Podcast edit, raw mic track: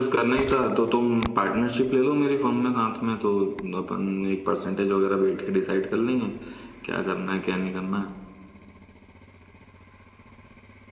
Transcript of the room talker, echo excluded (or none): none